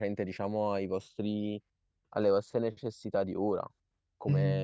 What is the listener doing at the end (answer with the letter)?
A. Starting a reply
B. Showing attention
B